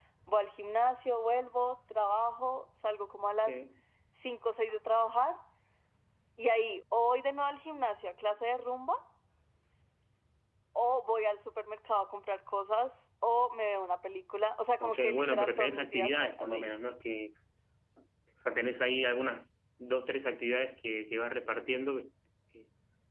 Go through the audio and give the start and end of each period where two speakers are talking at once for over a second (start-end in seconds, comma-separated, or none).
14.8-16.7